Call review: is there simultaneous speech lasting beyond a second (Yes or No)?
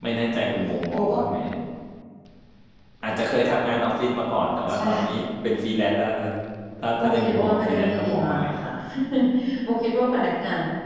Yes